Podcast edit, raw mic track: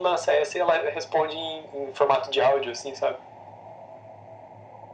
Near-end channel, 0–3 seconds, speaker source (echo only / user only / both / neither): echo only